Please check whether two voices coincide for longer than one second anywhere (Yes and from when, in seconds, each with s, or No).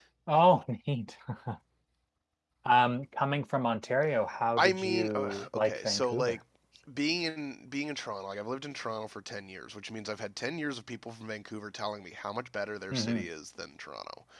Yes, from 4.6 s